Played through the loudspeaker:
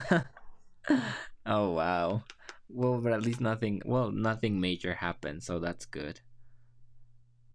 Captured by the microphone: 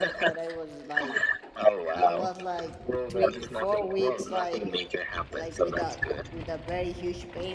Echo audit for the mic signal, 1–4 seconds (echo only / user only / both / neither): both